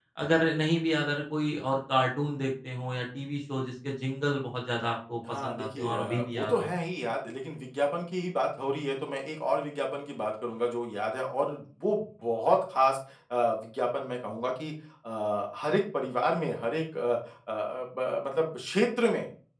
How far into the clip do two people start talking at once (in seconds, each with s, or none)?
5.2 s